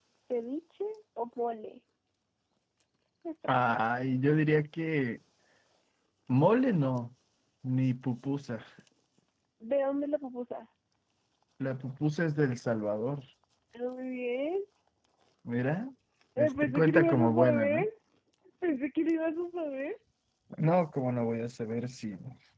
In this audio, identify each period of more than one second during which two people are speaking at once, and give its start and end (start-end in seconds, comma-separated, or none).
16.4-17.9